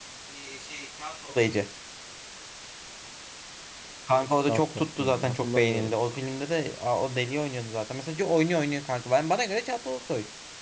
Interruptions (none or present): present